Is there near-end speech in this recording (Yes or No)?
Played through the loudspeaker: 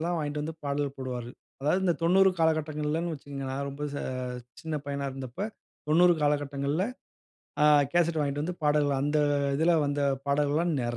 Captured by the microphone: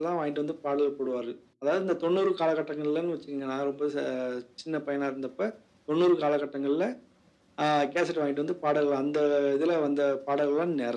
No